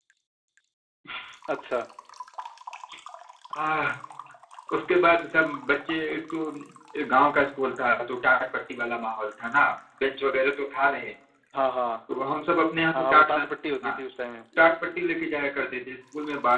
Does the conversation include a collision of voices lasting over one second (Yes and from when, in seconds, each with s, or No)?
No